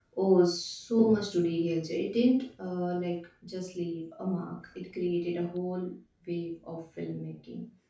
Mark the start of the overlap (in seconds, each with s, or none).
none